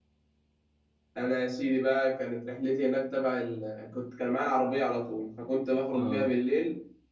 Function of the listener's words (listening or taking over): listening